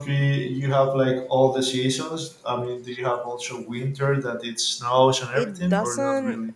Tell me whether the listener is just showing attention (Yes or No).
No